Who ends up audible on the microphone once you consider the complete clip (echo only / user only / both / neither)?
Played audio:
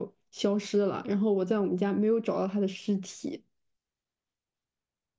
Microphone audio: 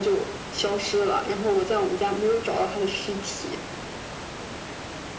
echo only